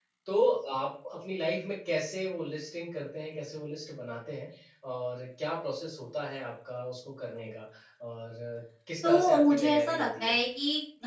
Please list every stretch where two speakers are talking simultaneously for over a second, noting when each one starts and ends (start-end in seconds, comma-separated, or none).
9.0-10.3